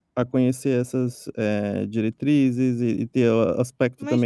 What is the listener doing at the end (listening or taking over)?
taking over